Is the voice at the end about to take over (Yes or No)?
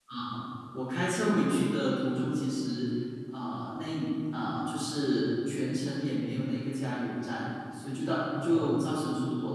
No